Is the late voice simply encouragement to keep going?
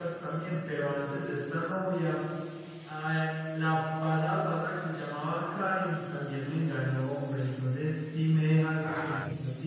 Yes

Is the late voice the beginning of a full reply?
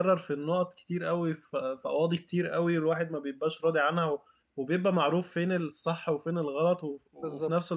No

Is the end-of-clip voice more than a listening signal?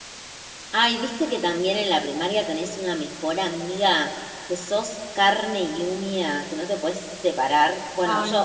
No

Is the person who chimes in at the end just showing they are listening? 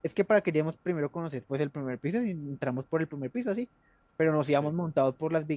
Yes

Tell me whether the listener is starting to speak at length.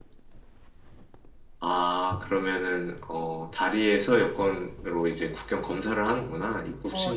Yes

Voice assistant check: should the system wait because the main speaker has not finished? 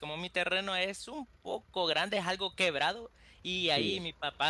Yes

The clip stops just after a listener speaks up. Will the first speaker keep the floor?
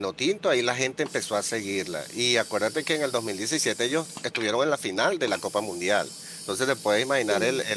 Yes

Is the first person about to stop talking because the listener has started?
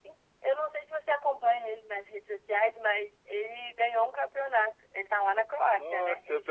Yes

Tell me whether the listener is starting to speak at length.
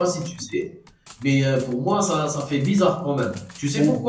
No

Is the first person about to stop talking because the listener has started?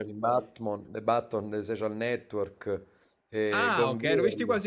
Yes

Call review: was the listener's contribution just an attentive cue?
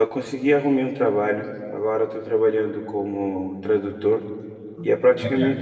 Yes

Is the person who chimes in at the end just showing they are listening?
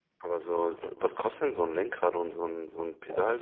No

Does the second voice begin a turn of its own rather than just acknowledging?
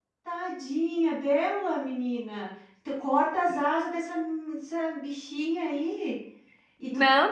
Yes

